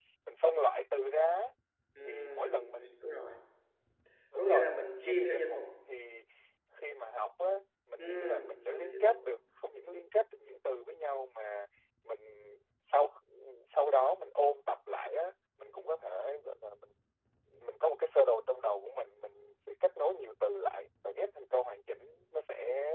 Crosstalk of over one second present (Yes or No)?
Yes